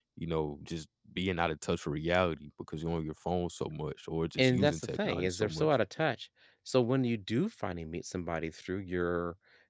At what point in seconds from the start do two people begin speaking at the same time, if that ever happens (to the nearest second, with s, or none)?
4 s